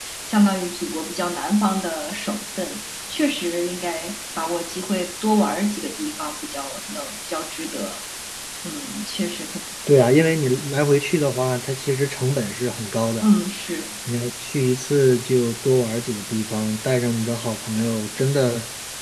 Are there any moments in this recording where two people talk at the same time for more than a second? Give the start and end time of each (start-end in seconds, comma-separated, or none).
none